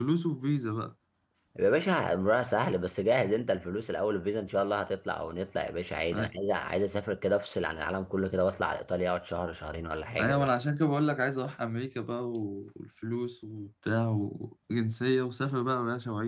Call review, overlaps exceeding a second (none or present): none